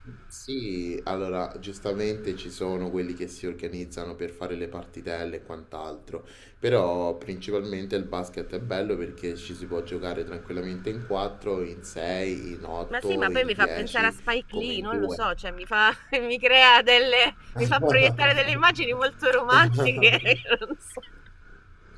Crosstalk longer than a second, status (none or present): present